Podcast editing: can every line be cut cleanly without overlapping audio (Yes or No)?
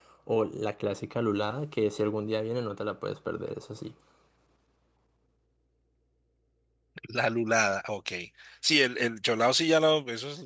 Yes